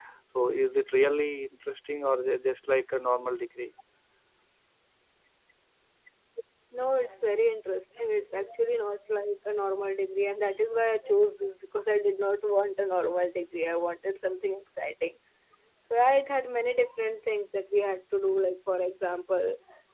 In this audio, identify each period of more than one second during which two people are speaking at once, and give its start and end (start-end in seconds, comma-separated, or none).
none